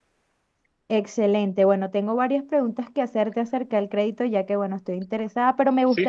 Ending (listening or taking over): listening